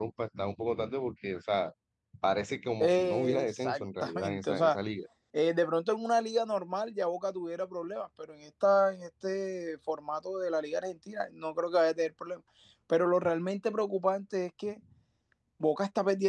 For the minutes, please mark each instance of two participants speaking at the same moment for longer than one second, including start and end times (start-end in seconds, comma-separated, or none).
2.8-4.8